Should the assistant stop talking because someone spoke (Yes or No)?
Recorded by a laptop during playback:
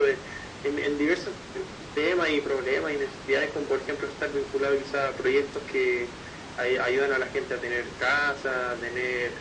No